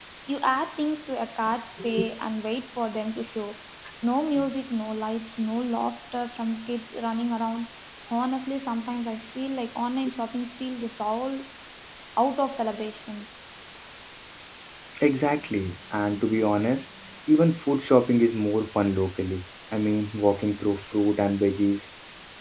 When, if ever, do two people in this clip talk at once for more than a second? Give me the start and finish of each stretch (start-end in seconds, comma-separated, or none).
none